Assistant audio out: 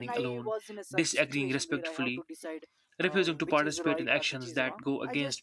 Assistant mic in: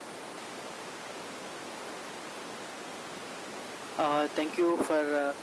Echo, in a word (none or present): none